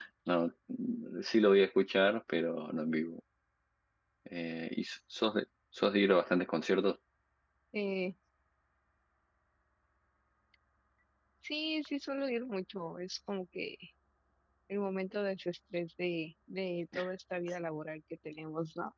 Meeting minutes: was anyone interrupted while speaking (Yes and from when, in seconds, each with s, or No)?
No